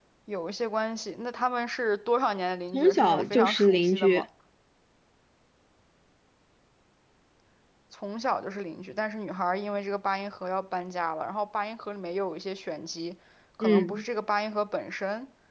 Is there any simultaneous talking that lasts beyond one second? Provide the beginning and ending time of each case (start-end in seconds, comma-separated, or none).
2.7-4.2